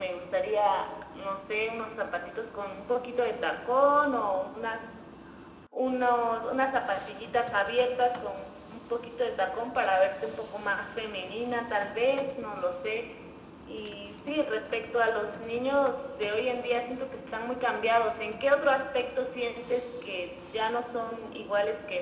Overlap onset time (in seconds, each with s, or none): none